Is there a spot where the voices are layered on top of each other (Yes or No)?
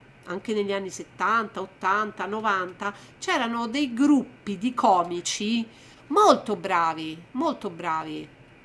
No